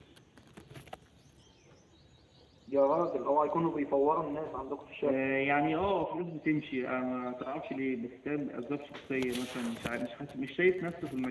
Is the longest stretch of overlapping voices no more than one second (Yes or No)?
Yes